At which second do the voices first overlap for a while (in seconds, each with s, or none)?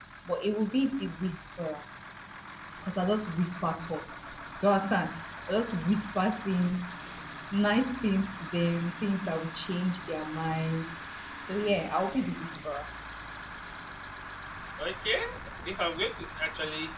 none